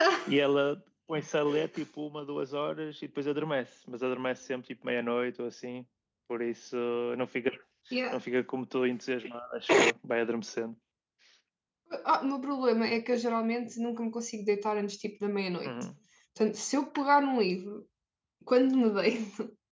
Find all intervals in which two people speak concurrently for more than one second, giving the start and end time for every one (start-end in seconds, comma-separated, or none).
none